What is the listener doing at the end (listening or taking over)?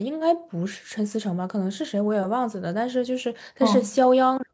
listening